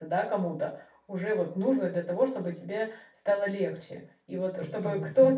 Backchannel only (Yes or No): Yes